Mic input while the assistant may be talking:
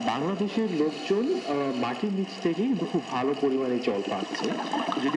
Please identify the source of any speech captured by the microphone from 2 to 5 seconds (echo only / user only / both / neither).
echo only